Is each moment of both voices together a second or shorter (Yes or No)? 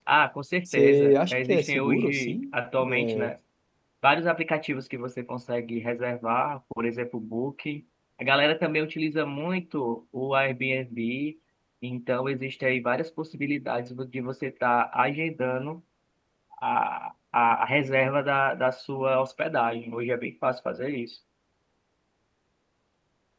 No